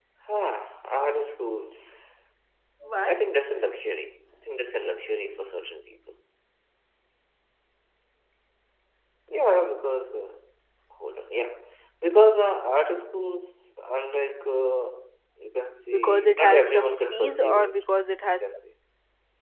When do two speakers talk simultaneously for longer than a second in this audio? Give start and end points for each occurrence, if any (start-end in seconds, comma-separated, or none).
15.9-17.8